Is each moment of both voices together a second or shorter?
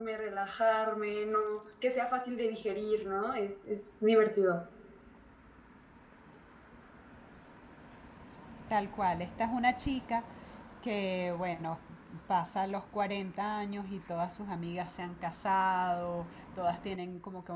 Yes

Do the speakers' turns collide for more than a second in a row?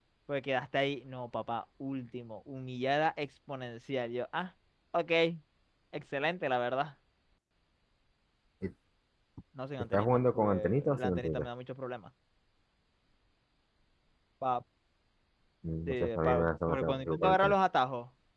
Yes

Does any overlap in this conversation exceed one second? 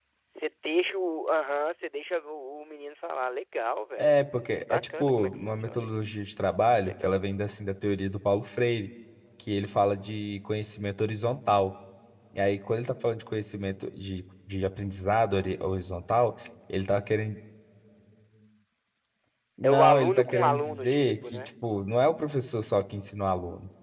Yes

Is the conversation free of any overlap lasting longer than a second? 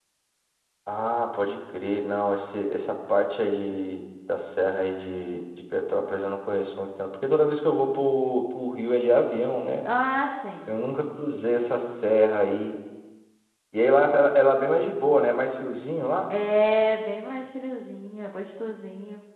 Yes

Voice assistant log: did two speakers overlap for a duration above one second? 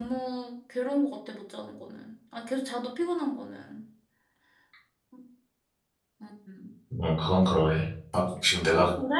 No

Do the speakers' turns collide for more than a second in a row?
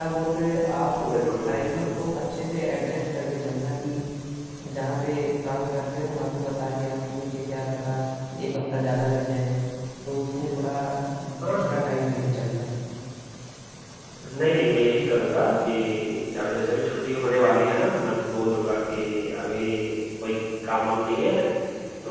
No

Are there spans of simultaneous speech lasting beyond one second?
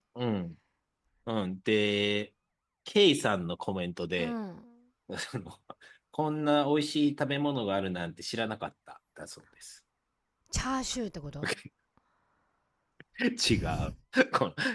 No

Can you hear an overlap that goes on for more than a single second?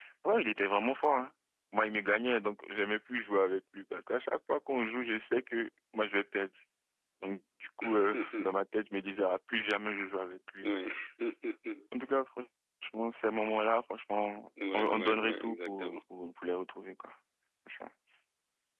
Yes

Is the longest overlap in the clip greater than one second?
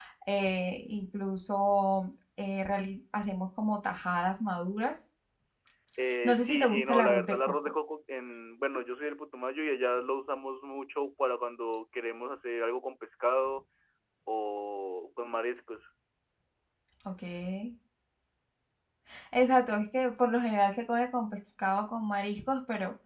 Yes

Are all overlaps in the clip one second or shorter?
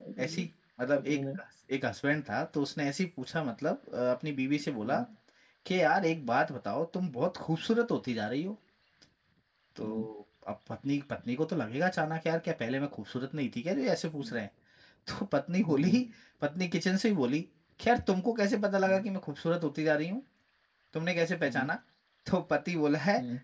Yes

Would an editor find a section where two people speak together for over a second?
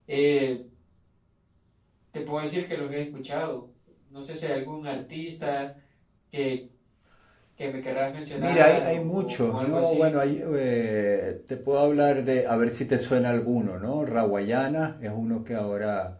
Yes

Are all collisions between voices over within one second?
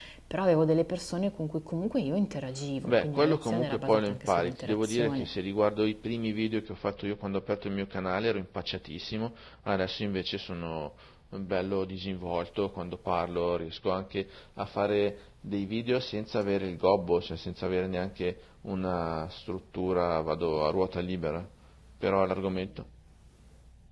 No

